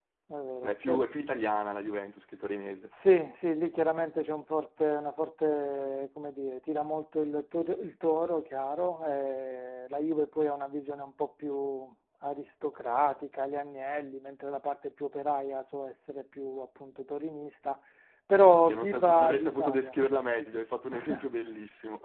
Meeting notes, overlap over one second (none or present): present